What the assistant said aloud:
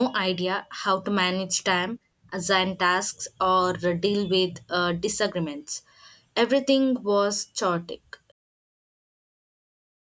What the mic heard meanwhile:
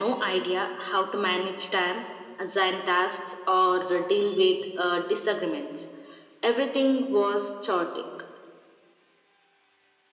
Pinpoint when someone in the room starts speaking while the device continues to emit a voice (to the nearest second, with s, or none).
none